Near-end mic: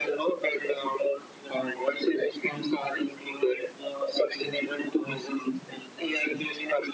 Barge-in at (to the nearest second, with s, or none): none